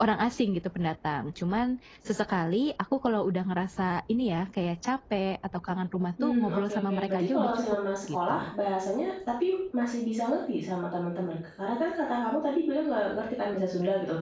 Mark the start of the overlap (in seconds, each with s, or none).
6.2 s